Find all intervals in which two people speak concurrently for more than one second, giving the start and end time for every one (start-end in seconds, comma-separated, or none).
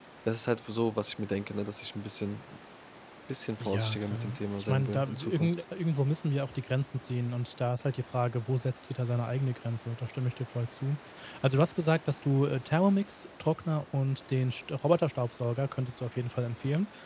3.6-5.6